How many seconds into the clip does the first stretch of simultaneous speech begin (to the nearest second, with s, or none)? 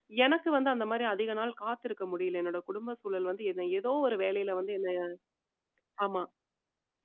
none